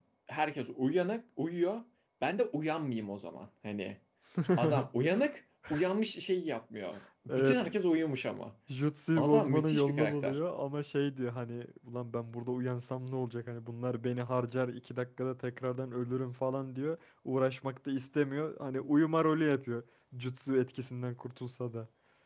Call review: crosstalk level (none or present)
present